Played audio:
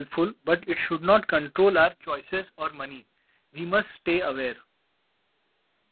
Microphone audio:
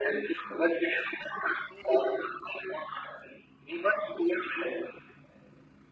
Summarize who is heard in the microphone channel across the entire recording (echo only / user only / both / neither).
echo only